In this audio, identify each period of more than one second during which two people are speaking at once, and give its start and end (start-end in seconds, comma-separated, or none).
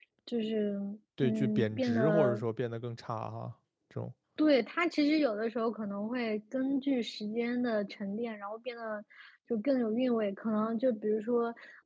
1.2-2.4